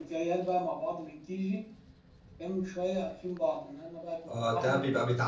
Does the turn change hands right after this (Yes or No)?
Yes